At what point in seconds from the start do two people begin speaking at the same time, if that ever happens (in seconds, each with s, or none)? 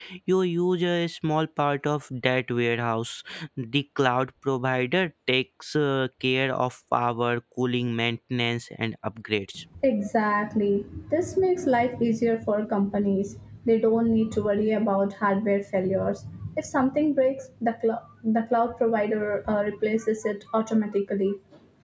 none